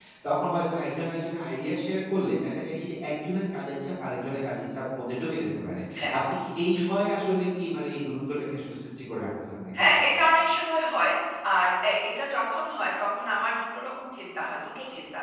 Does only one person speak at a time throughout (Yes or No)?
Yes